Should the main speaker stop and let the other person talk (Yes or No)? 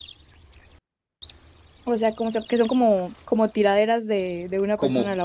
Yes